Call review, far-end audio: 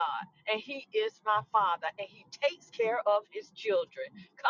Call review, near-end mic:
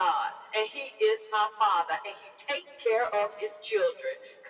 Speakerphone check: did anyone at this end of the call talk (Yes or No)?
No